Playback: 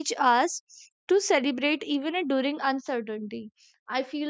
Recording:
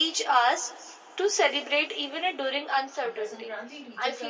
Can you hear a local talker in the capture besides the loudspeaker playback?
Yes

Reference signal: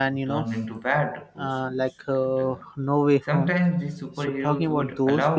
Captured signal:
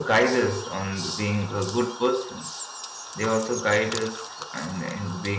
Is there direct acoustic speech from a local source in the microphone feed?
Yes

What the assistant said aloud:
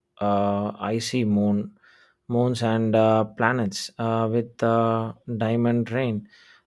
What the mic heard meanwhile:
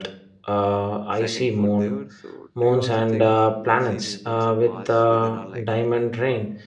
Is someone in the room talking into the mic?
Yes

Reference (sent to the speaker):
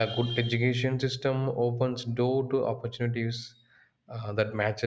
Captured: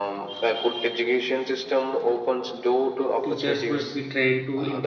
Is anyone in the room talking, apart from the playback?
Yes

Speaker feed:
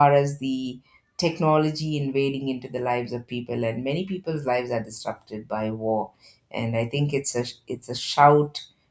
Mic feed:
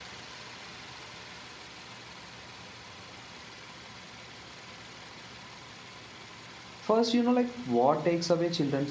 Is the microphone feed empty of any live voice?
No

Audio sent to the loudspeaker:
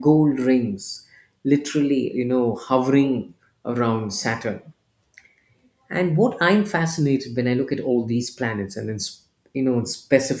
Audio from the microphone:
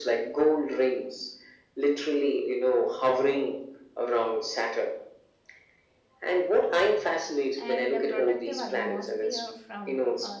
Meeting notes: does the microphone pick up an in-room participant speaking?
Yes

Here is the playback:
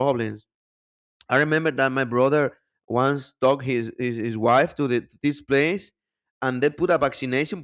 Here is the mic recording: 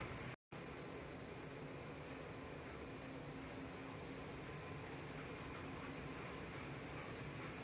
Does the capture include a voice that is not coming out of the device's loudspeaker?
No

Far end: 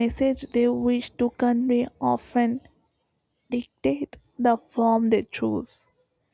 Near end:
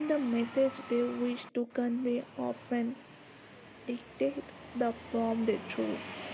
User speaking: No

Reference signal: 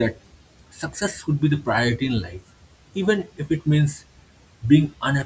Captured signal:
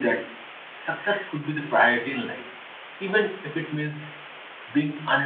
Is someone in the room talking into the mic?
No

